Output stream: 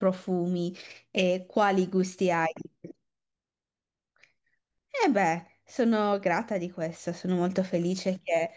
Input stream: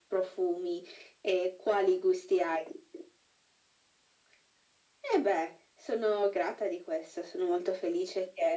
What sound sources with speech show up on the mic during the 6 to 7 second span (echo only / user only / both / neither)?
echo only